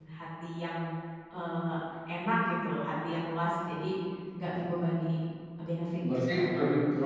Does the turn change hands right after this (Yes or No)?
Yes